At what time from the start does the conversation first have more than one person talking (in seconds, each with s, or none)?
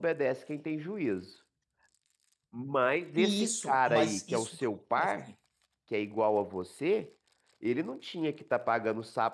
3.2 s